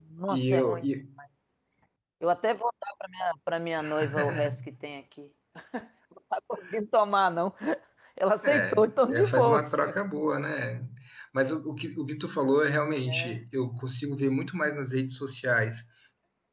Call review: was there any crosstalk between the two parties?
Yes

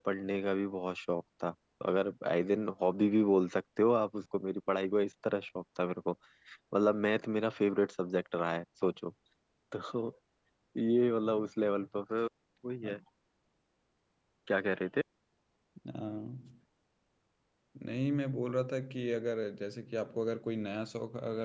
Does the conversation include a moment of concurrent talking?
No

